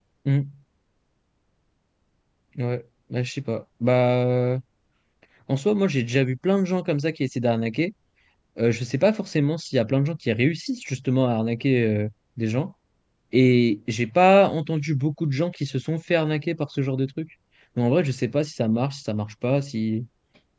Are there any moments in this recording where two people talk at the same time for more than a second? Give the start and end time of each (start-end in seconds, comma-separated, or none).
none